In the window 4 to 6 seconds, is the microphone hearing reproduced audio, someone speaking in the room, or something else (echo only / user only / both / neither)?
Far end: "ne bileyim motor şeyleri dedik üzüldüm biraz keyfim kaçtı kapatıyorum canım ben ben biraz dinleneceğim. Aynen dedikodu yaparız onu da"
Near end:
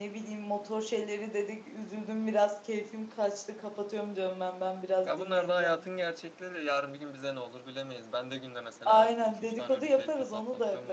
both